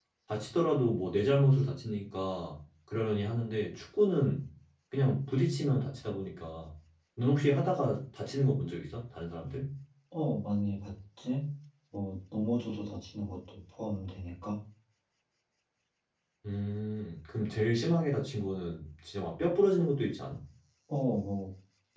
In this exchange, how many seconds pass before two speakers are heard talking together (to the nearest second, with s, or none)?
none